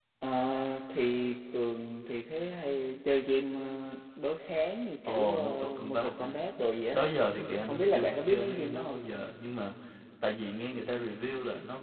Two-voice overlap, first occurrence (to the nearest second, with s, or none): 5 s